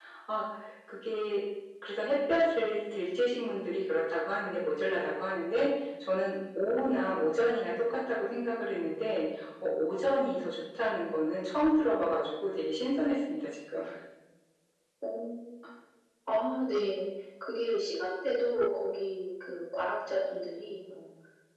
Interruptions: none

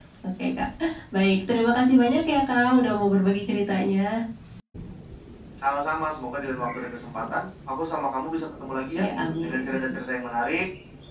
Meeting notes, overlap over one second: none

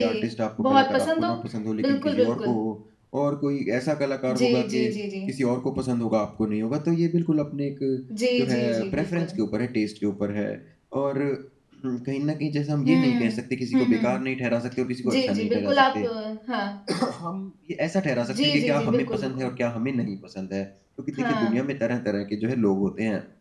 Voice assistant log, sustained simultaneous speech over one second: present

